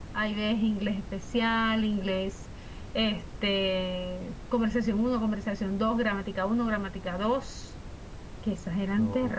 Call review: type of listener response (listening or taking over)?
listening